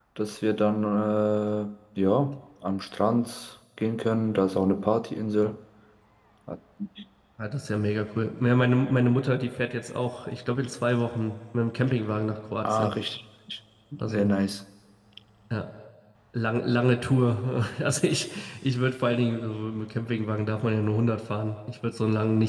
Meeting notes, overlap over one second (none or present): none